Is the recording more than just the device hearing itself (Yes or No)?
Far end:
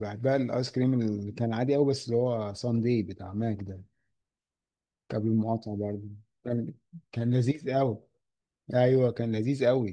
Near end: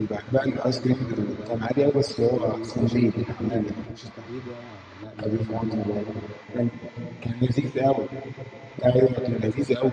Yes